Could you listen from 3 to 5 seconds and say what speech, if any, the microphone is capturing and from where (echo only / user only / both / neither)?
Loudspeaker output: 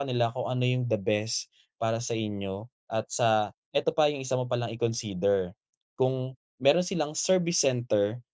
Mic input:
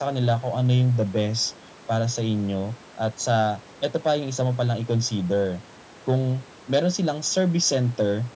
echo only